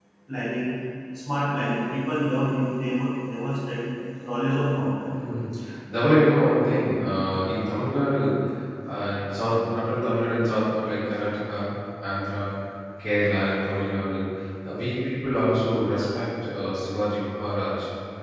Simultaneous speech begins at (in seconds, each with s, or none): none